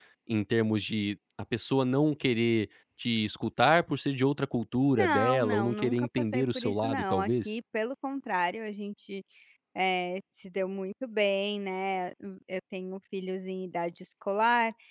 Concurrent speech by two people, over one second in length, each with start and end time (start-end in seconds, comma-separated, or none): 5.0-7.6